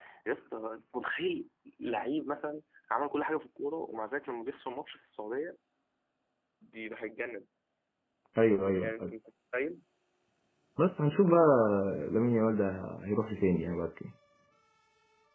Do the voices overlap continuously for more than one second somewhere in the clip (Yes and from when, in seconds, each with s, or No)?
No